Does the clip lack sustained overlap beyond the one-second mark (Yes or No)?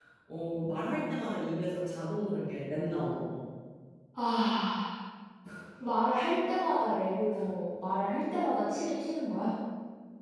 Yes